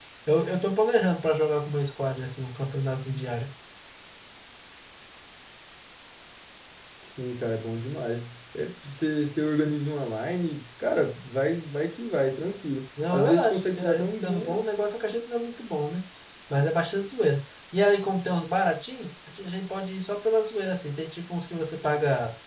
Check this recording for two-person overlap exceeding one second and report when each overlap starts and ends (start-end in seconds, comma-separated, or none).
13.1-14.6